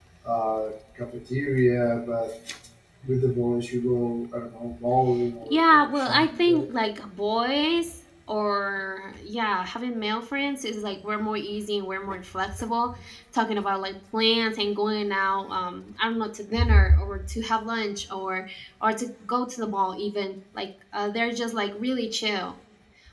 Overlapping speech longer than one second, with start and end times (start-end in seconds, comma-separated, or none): 5.4-6.7